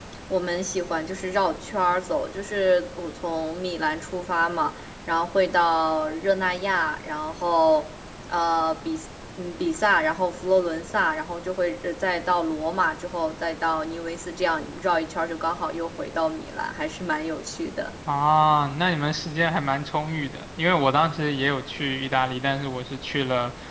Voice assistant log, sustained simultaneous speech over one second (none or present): none